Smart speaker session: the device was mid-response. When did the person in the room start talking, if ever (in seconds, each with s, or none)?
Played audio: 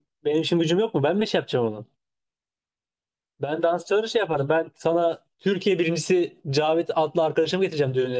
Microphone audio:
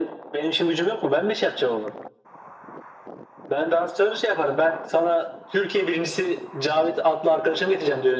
none